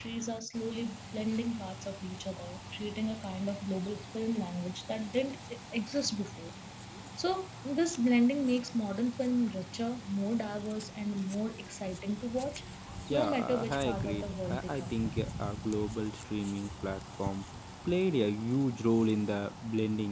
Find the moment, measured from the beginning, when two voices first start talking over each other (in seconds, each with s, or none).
13.1 s